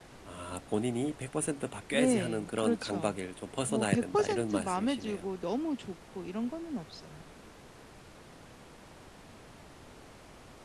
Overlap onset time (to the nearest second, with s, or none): 2 s